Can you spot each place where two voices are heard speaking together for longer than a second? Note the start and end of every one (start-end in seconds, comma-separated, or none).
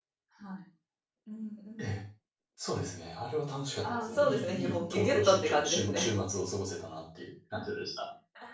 3.8-6.1